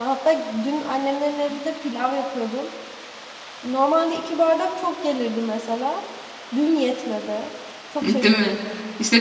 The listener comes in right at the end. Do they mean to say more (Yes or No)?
Yes